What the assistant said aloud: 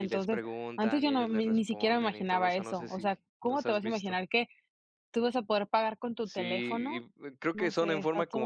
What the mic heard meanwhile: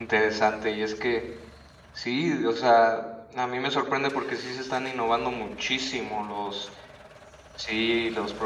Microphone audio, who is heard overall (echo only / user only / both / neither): user only